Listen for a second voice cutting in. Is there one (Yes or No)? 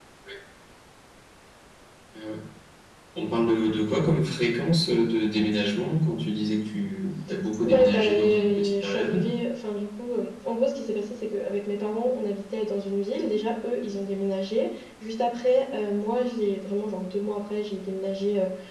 Yes